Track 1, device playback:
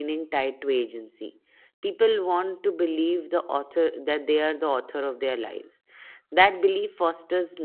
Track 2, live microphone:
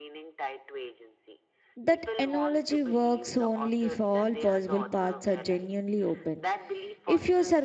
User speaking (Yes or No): Yes